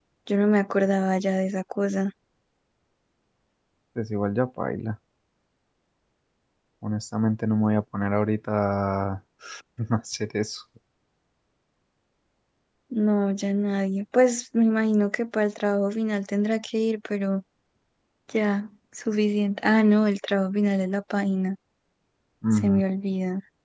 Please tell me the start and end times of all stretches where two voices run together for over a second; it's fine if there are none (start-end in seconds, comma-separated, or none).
none